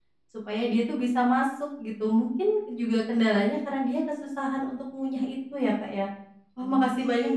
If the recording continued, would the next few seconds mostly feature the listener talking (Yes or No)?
No